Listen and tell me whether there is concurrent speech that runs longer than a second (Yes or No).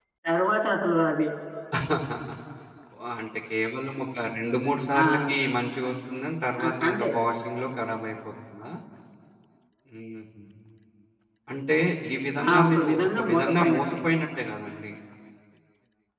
Yes